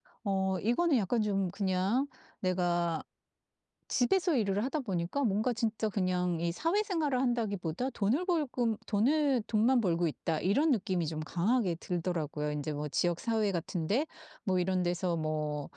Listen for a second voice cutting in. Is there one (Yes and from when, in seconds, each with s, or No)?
No